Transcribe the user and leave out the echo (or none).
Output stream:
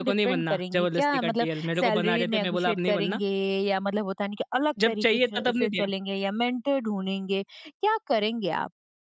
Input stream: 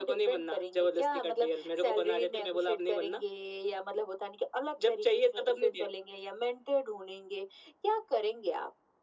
none